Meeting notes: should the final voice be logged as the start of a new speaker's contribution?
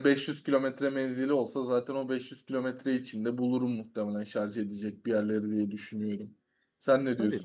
Yes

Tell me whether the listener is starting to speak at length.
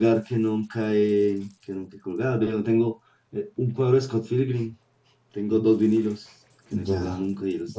Yes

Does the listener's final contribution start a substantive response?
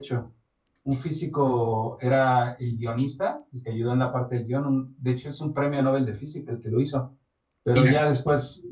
No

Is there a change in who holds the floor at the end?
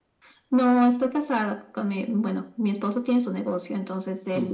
No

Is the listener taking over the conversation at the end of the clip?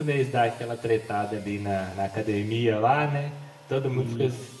No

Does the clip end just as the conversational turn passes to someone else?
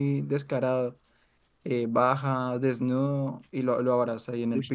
No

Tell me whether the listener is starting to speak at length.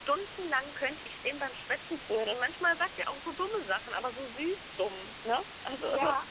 Yes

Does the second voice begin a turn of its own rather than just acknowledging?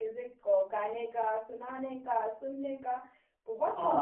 Yes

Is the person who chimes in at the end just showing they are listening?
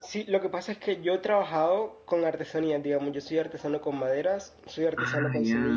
Yes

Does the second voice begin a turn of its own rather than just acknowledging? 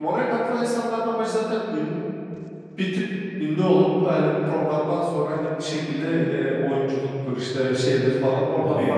Yes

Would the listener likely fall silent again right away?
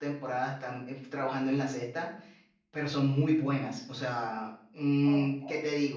Yes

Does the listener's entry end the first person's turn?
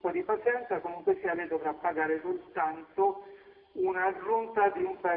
No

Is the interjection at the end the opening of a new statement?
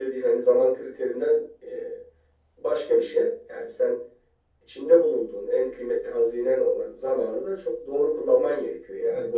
Yes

